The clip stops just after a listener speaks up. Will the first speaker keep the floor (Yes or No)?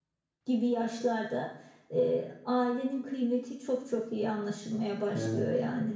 No